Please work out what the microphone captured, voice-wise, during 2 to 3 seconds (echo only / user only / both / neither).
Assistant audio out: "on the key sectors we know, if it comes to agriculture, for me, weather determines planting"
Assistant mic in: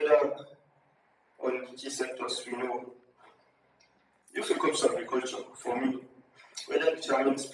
echo only